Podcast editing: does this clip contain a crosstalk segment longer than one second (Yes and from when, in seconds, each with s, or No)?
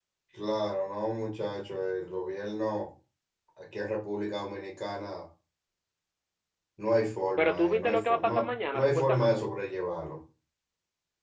Yes, from 7.4 s